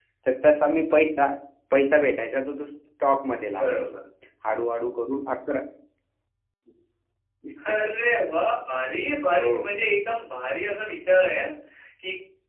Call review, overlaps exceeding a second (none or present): none